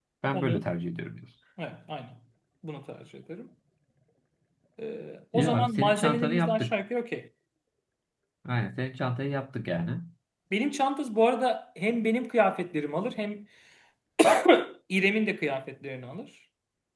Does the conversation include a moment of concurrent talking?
Yes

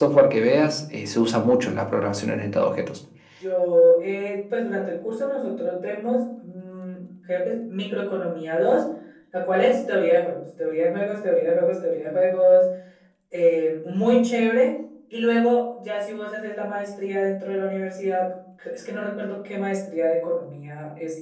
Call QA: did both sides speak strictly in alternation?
Yes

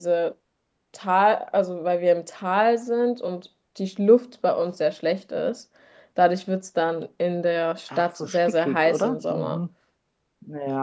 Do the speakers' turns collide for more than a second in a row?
Yes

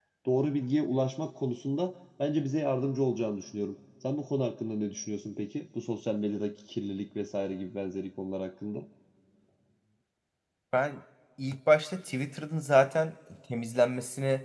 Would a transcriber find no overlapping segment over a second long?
Yes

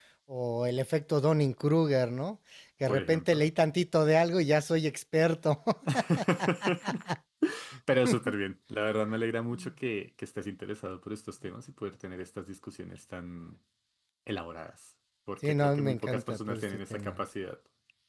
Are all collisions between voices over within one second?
No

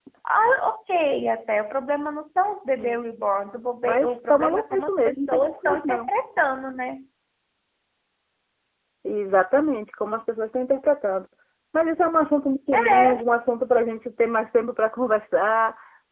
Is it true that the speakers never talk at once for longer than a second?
No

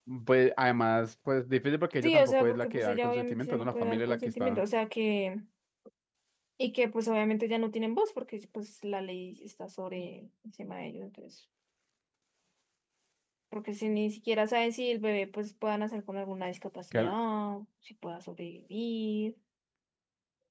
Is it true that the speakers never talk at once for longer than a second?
No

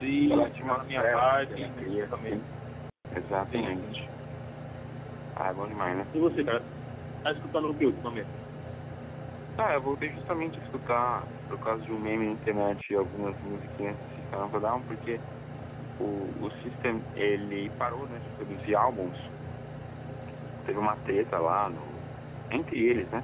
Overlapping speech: Yes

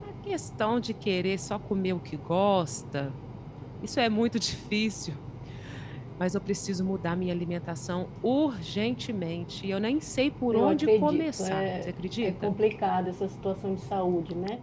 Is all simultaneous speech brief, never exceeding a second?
No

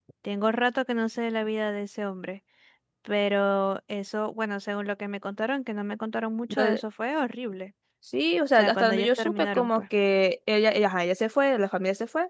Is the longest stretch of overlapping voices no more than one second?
No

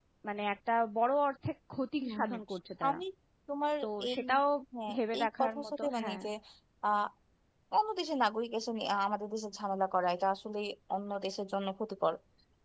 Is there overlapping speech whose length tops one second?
Yes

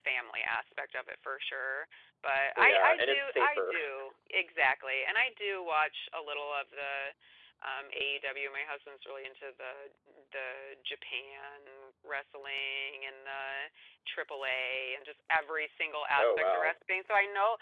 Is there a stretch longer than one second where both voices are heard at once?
Yes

